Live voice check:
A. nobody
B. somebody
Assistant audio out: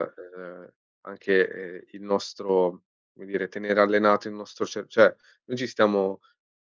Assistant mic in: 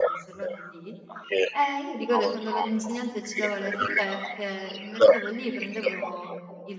B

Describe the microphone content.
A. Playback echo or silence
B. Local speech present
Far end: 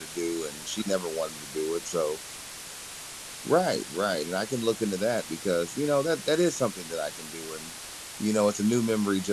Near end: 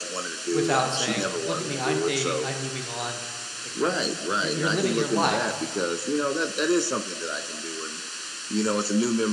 B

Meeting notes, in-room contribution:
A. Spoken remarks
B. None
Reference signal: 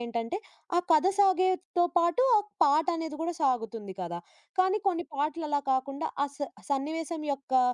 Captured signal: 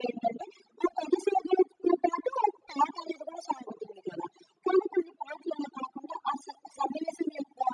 B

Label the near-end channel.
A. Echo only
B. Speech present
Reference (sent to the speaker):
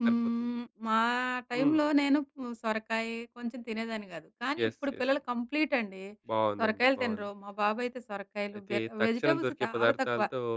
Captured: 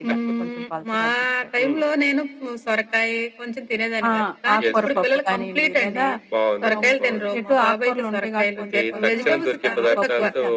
B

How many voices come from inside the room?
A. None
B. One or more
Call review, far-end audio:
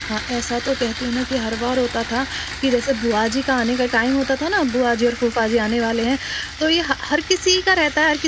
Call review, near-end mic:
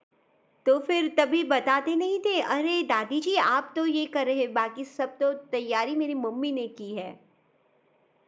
B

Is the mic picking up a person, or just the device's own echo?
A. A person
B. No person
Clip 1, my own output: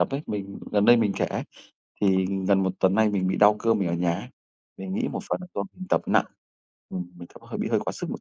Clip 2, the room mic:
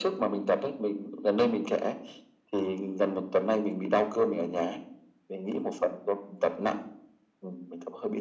B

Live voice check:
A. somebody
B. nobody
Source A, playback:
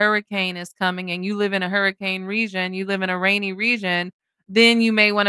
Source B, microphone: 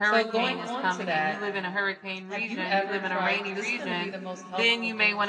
A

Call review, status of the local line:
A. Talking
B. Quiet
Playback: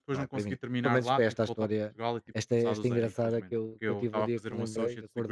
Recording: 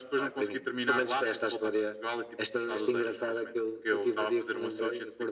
B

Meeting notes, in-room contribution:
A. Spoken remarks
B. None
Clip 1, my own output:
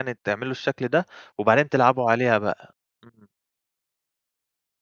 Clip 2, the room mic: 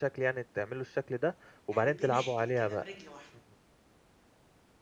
A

